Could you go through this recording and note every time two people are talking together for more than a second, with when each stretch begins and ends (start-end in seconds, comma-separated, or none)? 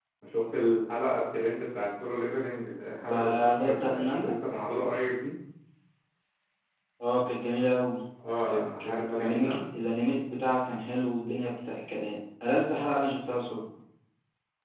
3.0-4.3, 8.5-9.7